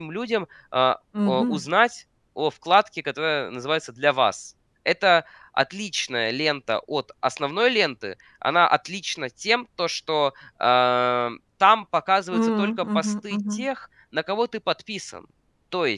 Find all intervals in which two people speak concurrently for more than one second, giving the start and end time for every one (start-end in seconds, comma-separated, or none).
12.3-13.7